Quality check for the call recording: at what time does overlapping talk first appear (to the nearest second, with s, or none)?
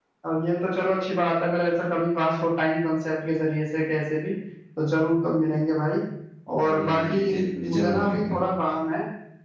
7 s